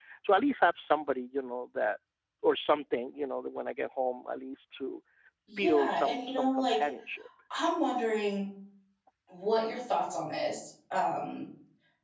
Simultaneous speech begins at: 5.6 s

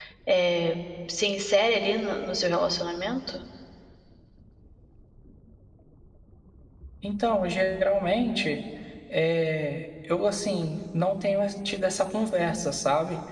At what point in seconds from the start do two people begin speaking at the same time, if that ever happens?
none

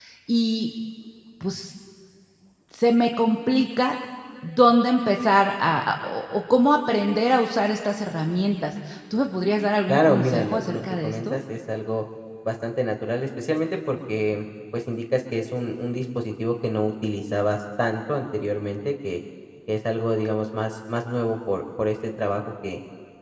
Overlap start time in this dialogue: 9.9 s

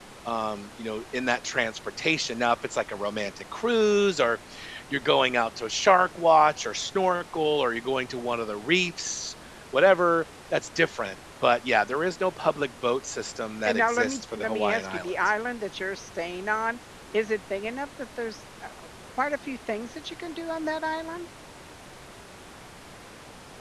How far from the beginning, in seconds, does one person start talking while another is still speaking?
13.7 s

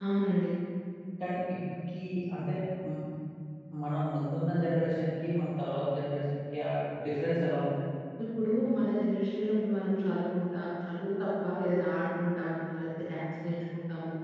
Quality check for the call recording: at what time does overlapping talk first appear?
none

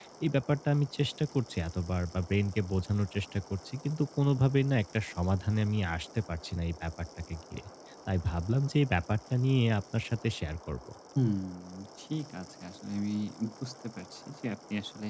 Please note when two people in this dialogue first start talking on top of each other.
none

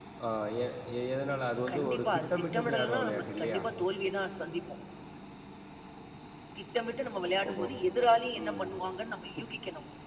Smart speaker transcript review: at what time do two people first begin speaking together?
1.7 s

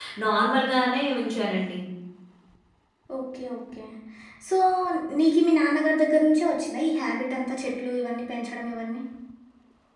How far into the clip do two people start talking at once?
none

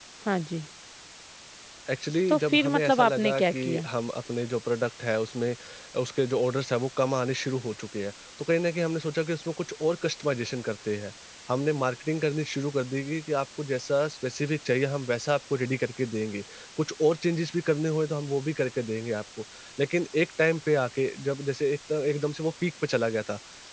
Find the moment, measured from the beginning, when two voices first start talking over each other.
2.3 s

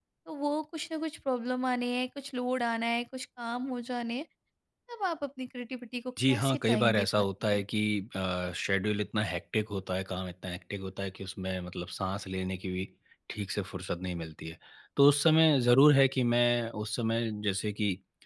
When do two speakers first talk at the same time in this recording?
6.2 s

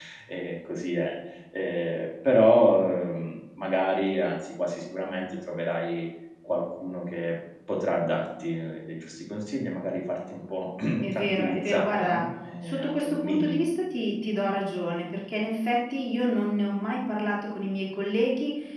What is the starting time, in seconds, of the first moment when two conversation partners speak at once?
11.0 s

